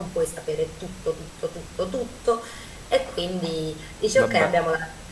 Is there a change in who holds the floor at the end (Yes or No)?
No